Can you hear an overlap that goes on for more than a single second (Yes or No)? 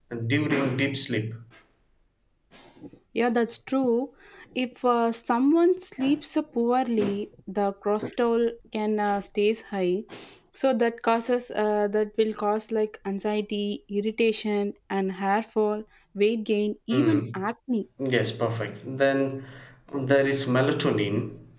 No